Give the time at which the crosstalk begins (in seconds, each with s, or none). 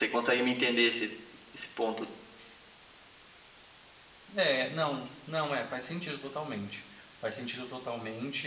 none